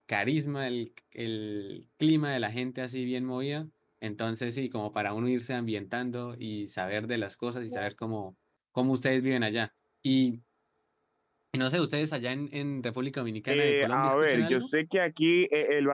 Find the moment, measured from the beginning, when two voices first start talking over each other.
13.5 s

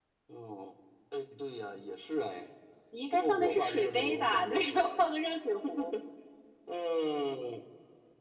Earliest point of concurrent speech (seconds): 3.1 s

